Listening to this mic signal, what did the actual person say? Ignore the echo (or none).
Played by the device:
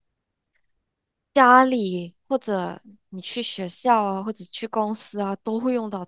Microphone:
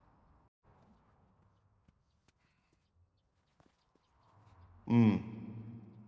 嗯，